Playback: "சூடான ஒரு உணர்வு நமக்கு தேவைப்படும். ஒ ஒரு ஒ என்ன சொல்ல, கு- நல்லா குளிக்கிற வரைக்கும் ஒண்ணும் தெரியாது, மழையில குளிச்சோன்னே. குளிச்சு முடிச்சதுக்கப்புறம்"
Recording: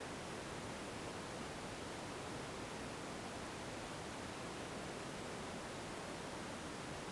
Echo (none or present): none